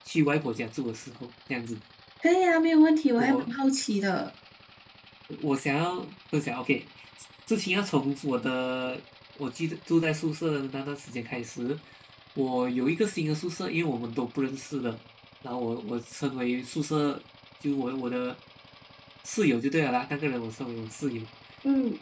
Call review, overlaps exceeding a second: none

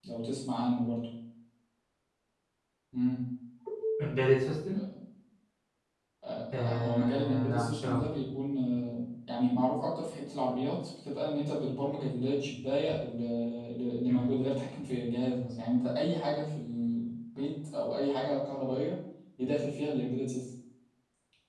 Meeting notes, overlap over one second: present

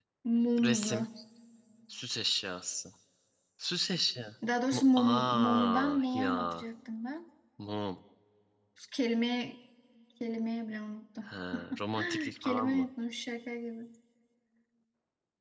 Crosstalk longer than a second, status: present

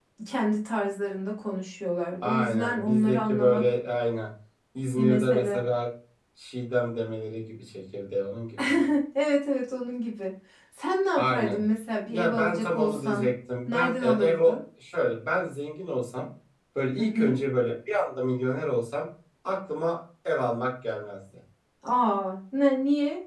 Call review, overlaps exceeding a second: present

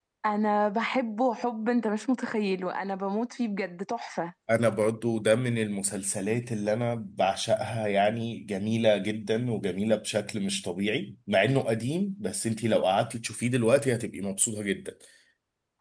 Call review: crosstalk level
none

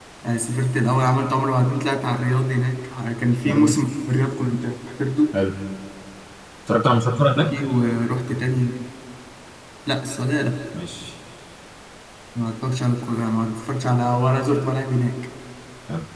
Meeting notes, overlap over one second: none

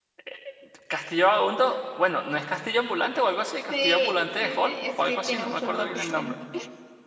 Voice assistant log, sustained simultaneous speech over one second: present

